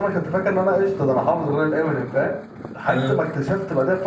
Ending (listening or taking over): listening